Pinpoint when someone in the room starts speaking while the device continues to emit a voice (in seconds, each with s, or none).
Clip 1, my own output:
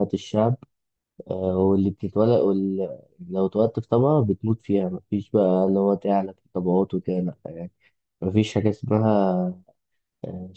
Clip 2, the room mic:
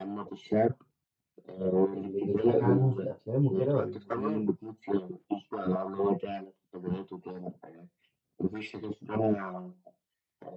1.9 s